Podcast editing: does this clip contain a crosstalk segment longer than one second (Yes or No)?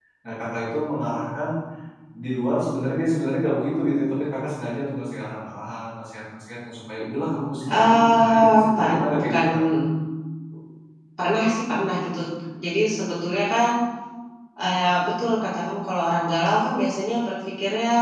Yes